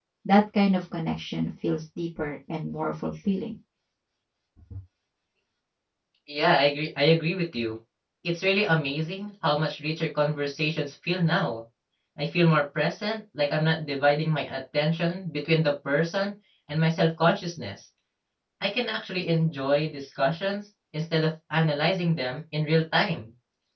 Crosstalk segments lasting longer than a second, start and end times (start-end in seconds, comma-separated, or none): none